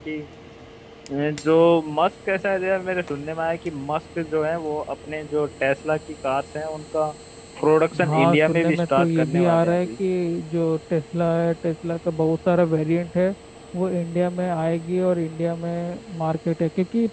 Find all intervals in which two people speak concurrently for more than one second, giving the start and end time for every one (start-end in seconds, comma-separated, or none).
8.0-9.9